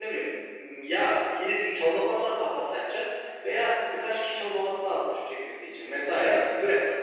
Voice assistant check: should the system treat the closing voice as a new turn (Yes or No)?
No